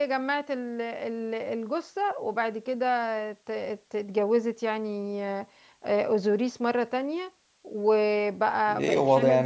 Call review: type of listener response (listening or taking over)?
taking over